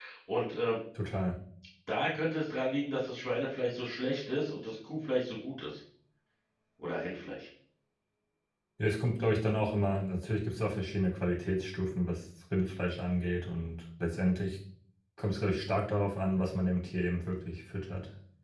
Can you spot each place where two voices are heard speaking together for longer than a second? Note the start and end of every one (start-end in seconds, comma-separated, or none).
none